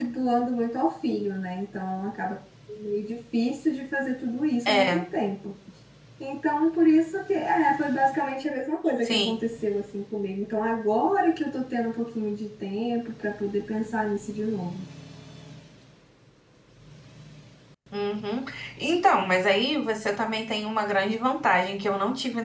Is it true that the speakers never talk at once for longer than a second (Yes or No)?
Yes